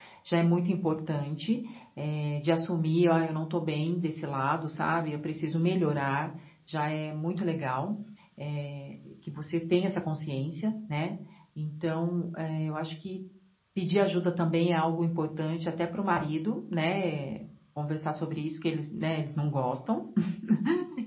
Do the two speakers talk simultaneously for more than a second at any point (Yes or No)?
No